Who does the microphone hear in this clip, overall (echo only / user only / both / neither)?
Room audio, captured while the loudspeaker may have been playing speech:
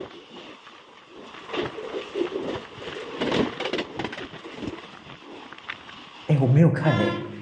user only